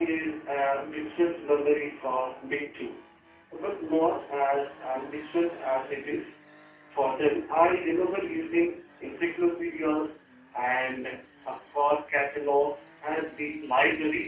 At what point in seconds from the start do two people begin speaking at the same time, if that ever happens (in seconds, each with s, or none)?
none